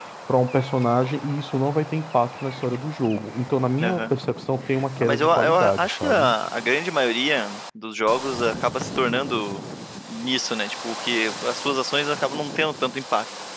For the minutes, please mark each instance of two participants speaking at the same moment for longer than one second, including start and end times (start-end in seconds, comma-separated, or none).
5.0-6.3